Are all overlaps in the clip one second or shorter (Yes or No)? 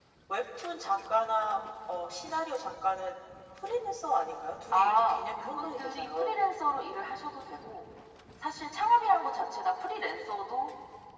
No